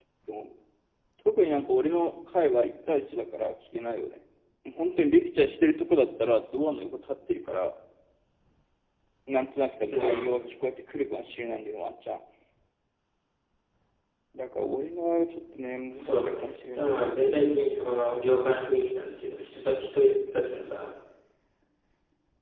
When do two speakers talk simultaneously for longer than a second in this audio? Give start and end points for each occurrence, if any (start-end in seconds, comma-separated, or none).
16.0-17.7